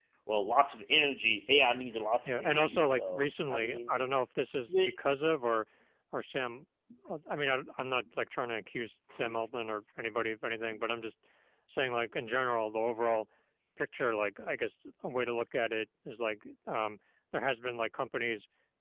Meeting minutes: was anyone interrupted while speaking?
Yes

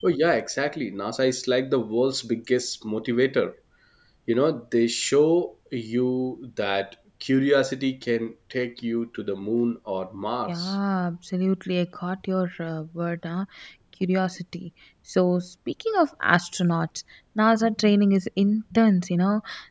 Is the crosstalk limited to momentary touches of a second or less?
Yes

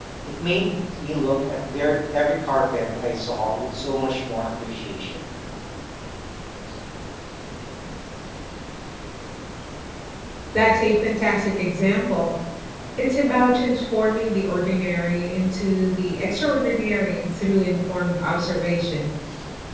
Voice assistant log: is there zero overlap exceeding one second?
Yes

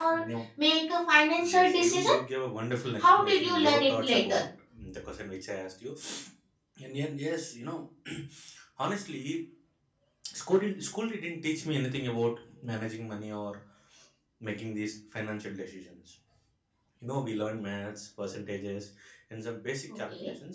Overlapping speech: Yes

